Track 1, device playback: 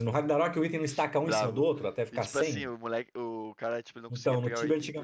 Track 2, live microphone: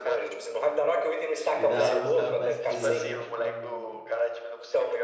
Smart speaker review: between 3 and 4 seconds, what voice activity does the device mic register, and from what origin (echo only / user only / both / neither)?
both